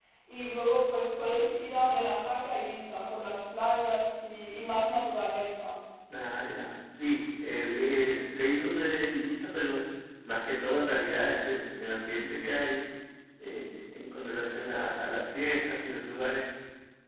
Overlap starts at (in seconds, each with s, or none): none